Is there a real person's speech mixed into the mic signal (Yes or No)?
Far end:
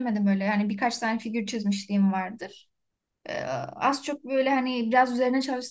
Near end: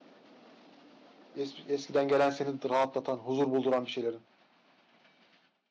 Yes